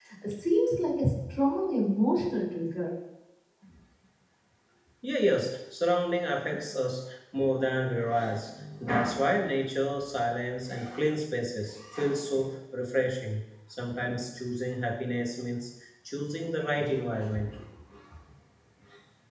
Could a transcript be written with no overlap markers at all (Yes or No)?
Yes